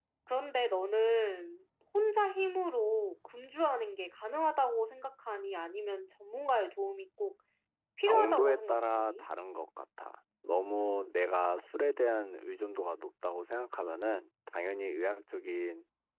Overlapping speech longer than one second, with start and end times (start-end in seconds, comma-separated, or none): 8.0-9.2